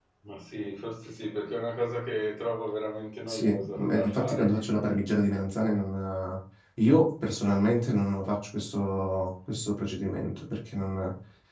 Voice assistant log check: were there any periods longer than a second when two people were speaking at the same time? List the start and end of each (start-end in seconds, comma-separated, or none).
3.3-4.5